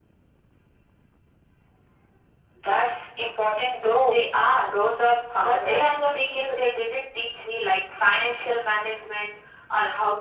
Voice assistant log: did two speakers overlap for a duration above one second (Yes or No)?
Yes